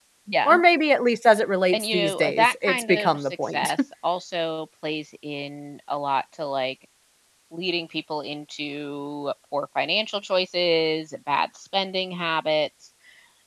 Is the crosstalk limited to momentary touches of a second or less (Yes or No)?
No